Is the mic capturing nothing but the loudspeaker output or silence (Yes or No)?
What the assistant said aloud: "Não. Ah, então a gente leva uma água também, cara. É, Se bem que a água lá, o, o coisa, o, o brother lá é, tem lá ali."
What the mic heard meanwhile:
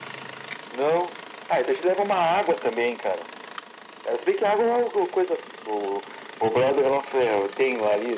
Yes